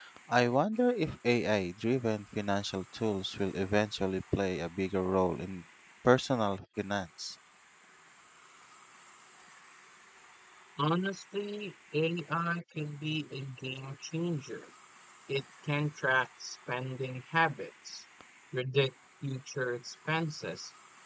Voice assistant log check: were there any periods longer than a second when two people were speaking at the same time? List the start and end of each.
none

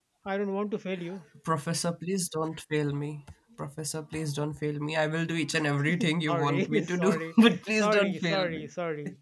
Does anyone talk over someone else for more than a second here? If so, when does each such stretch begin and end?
6.3-8.7

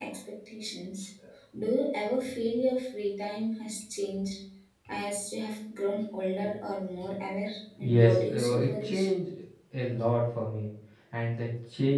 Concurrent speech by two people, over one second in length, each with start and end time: 7.8-9.1

